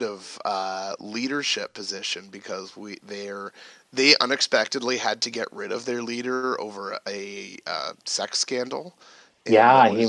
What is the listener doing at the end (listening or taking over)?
taking over